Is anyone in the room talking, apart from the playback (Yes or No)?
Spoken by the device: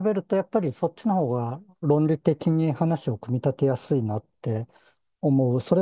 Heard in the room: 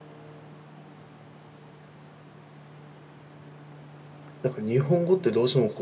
Yes